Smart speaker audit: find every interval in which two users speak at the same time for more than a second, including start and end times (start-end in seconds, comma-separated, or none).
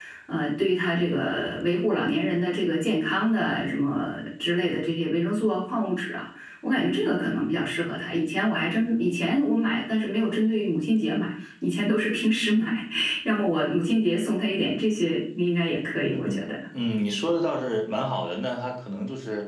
none